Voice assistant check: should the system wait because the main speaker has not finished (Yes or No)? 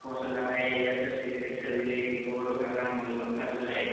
Yes